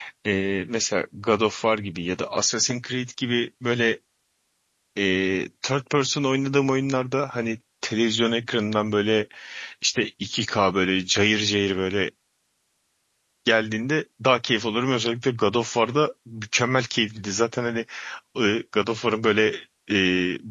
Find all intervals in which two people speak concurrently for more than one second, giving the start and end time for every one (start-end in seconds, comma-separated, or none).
none